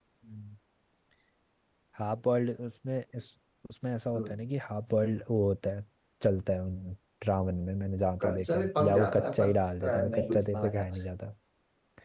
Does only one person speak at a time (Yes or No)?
No